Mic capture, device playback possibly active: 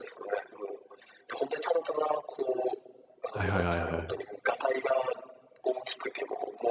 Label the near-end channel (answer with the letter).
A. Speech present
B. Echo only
A